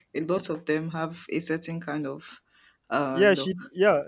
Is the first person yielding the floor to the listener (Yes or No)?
Yes